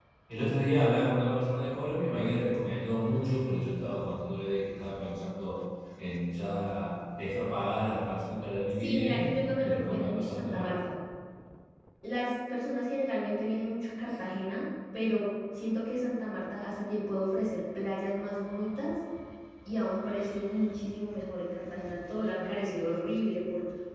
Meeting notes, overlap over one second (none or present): present